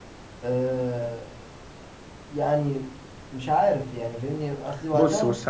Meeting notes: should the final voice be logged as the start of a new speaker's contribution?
Yes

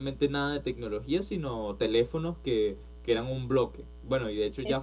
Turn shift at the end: No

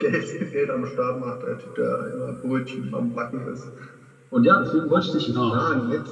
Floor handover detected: No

